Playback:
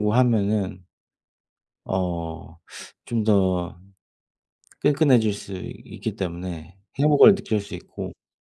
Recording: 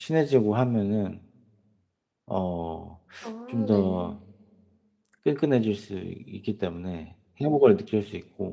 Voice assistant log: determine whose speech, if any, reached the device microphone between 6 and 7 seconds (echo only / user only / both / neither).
echo only